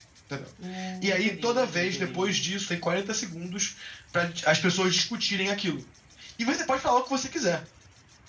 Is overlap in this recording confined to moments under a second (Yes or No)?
No